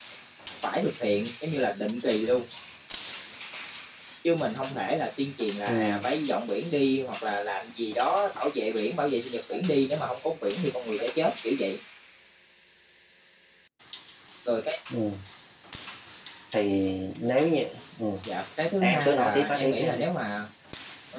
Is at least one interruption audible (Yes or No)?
Yes